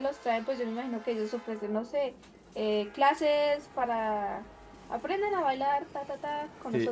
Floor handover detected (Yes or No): Yes